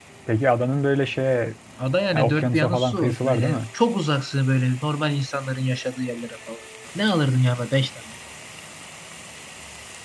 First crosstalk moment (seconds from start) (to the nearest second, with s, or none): 2 s